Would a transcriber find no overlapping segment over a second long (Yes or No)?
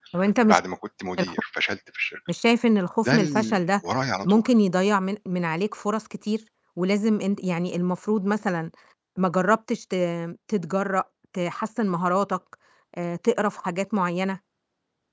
Yes